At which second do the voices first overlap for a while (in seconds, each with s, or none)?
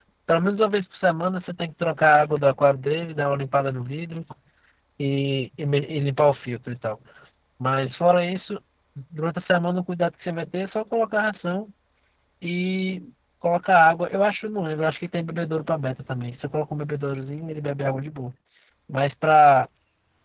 none